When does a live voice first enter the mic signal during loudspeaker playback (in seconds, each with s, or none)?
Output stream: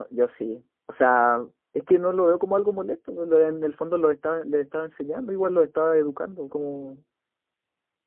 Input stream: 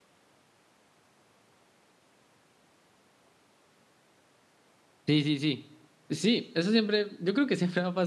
5.0 s